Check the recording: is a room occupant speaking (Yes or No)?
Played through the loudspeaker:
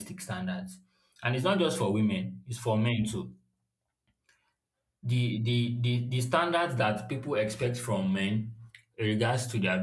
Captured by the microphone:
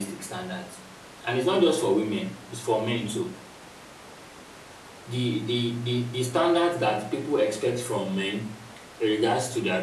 No